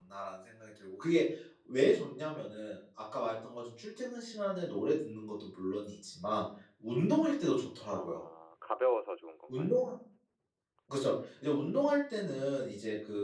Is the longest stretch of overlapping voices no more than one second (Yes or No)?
Yes